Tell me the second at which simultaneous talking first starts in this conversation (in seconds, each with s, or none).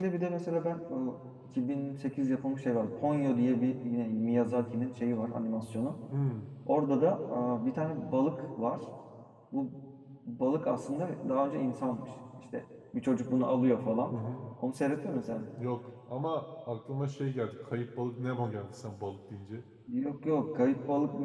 none